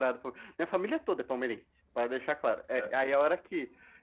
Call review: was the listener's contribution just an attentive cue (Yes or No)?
Yes